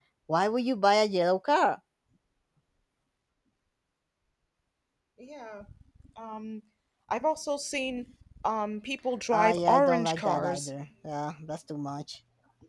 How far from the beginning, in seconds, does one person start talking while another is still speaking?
9.3 s

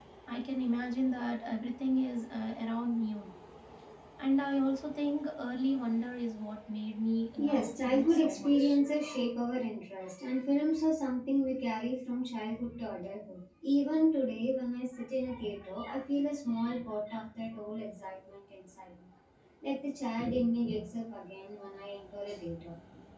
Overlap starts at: 7.4 s

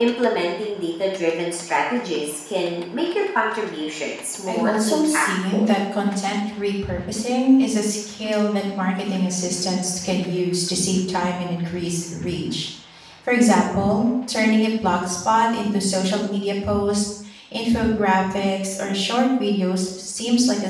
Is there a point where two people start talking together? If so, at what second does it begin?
4.5 s

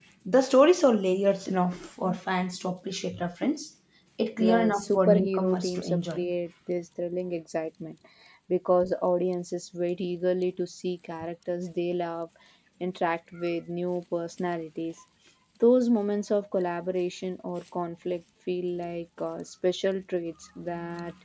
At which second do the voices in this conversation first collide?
4.4 s

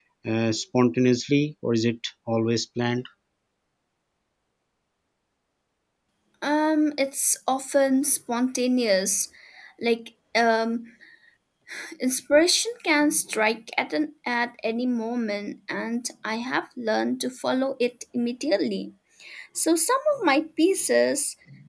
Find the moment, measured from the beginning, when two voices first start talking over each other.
none

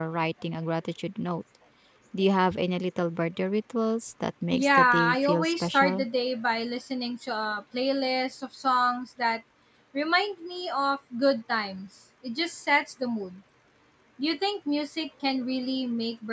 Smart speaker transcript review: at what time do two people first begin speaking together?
4.5 s

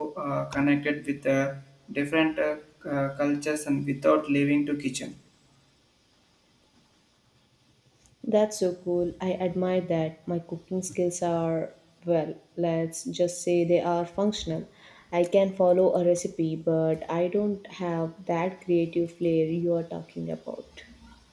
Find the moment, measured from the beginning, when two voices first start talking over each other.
none

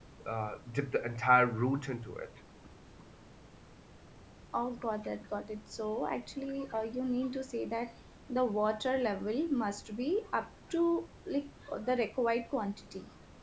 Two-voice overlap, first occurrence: none

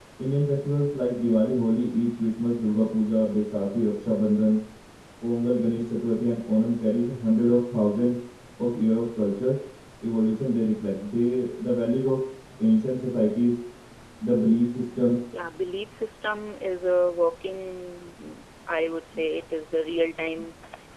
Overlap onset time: none

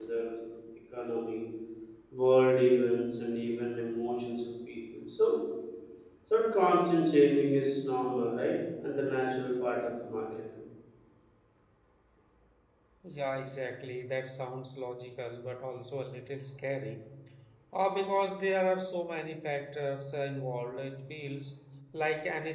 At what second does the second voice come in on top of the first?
none

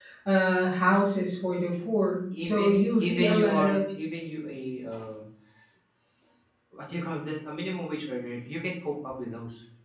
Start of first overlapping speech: 2.3 s

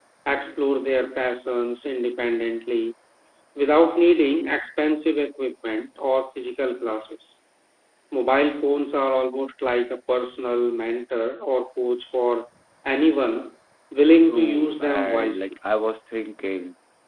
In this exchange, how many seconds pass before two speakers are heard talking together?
14.3 s

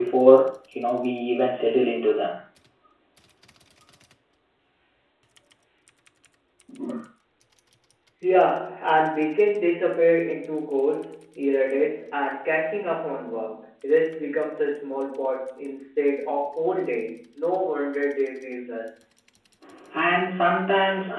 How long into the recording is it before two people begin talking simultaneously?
none

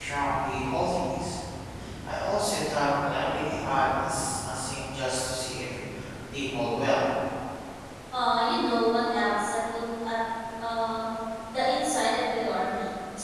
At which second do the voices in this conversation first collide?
none

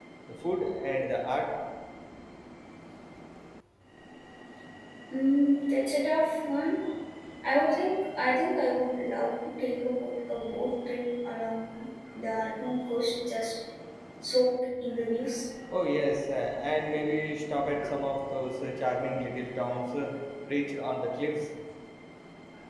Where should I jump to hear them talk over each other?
none

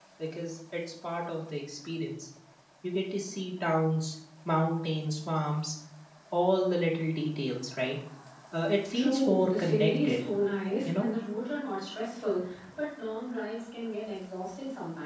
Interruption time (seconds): 8.9 s

